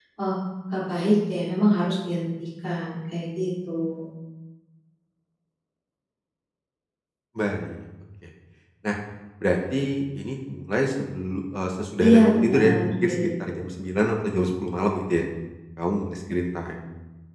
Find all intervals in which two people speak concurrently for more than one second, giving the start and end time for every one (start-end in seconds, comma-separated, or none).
12.0-13.3